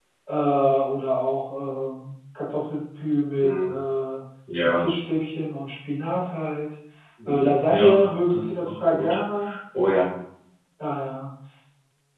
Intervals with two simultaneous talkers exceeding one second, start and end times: 7.2-9.2

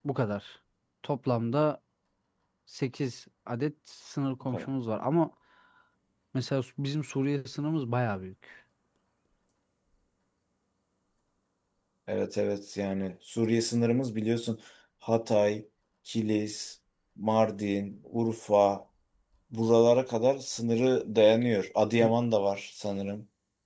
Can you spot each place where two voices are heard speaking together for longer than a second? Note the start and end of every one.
none

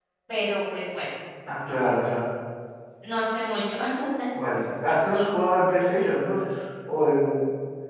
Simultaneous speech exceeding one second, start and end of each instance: none

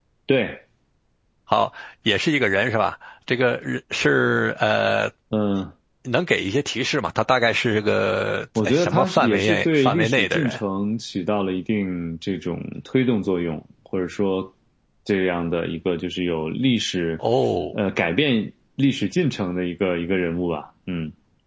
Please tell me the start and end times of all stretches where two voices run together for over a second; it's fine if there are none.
8.6-10.6

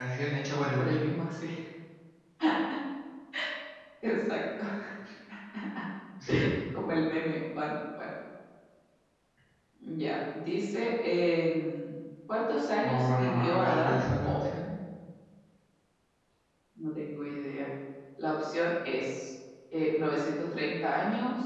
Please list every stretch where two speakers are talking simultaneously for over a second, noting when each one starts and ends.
12.8-14.4

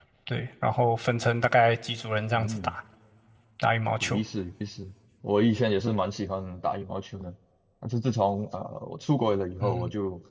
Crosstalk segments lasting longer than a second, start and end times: none

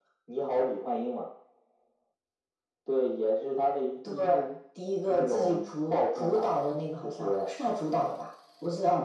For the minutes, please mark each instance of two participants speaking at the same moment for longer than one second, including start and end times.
5.1-6.4

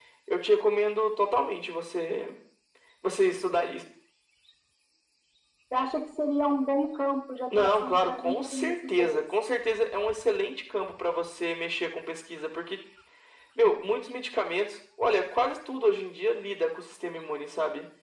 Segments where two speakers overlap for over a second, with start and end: 7.6-9.2

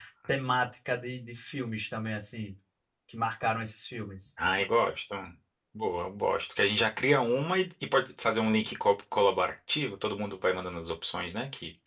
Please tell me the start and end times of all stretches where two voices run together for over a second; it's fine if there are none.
none

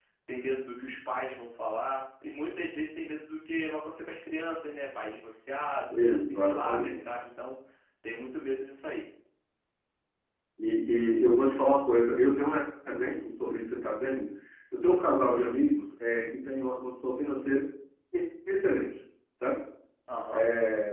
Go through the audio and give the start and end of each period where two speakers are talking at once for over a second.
5.9-7.1

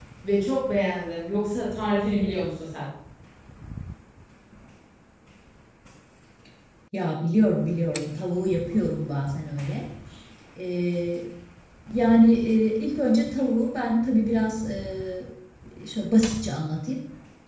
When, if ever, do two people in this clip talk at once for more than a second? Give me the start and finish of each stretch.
none

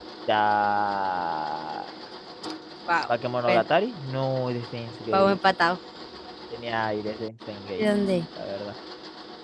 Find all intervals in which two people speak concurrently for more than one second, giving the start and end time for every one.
none

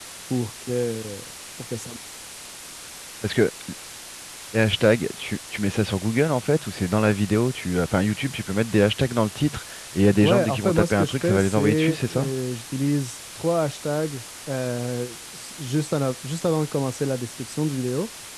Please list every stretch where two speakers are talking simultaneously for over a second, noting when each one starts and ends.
10.2-12.3

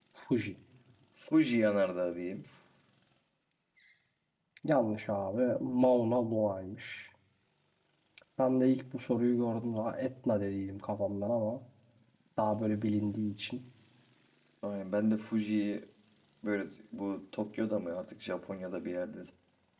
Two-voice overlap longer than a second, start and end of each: none

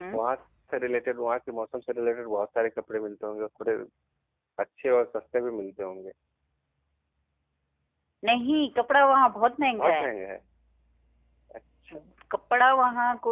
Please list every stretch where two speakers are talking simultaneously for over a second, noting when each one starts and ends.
none

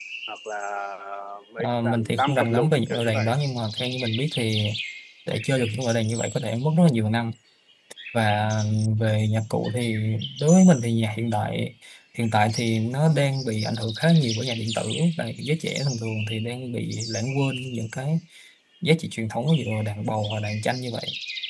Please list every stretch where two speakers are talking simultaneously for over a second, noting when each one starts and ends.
1.6-3.4

